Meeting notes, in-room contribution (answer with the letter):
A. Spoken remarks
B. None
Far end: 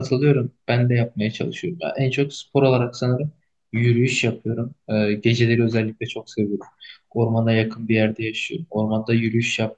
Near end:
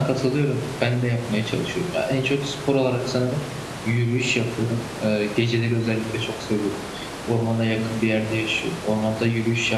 B